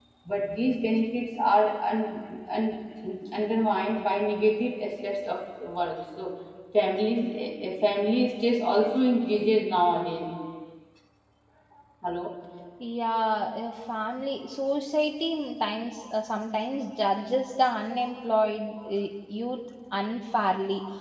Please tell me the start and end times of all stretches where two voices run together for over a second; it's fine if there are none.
none

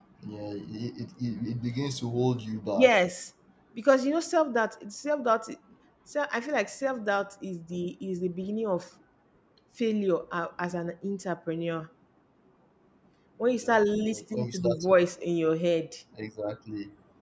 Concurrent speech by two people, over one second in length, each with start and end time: 13.6-14.9

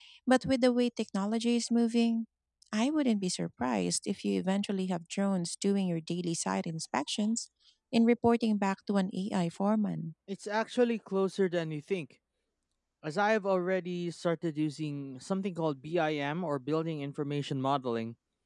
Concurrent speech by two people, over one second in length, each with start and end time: none

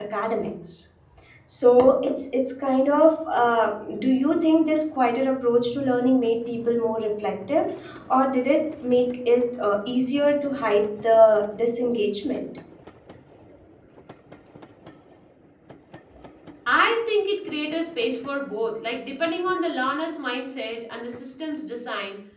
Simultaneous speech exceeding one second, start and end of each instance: none

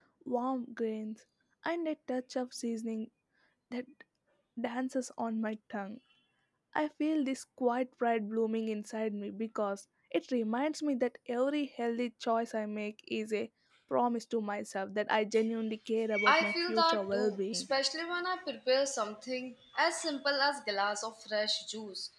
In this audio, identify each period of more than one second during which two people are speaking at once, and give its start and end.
16.3-17.7

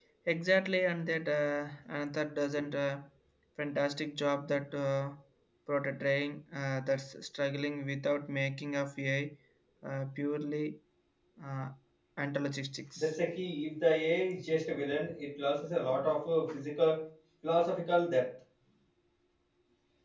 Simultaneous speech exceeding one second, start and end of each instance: none

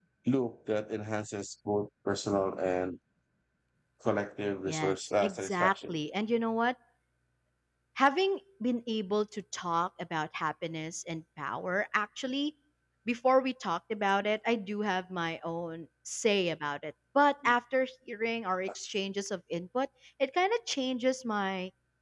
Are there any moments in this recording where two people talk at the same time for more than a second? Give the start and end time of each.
4.7-6.0

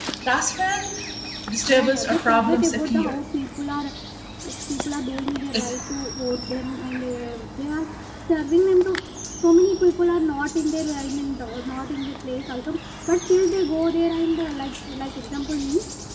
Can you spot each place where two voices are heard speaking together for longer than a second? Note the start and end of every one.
1.7-3.2

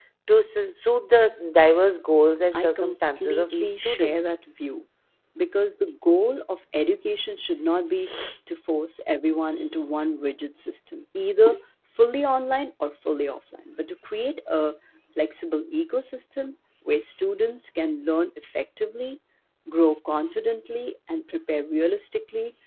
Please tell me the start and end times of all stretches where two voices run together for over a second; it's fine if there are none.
2.5-4.2

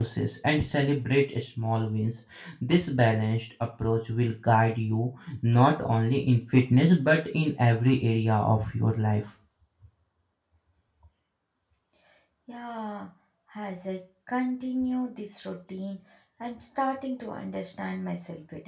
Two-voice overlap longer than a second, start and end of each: none

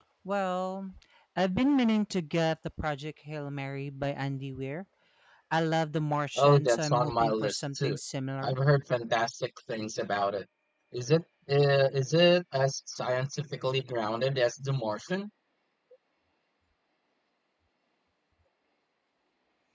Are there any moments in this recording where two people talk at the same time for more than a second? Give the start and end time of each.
6.4-8.0

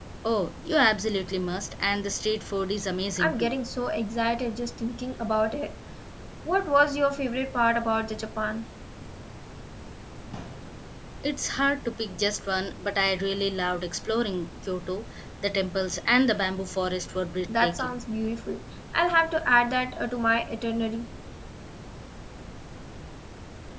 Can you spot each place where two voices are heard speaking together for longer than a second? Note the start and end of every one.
none

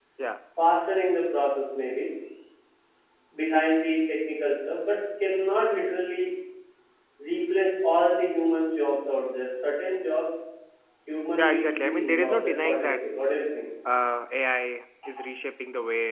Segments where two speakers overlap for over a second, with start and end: 11.4-13.0

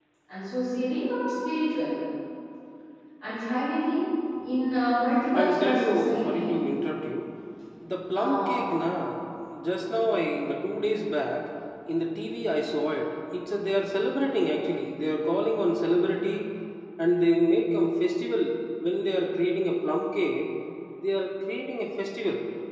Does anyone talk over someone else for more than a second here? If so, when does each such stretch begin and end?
5.3-6.6

